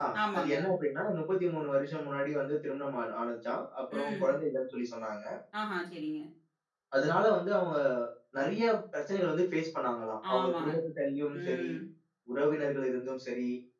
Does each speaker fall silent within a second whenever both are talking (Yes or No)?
Yes